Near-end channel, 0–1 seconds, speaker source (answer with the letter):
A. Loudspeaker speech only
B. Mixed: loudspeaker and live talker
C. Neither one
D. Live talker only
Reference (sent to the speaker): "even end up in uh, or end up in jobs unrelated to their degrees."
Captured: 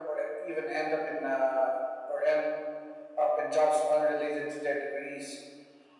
A